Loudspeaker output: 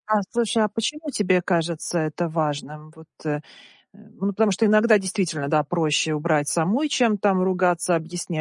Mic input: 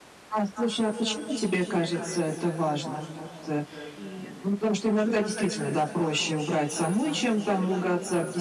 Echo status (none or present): present